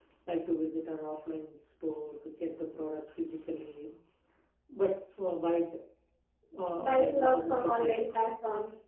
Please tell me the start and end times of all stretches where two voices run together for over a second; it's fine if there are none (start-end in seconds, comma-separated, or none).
6.8-8.0